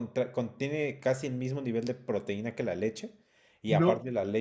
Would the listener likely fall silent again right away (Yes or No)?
Yes